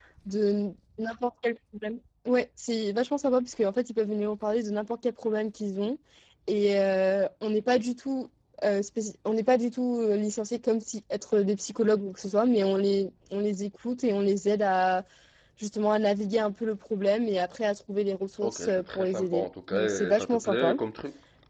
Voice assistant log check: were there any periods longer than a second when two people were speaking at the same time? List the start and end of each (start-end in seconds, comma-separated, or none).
18.4-20.8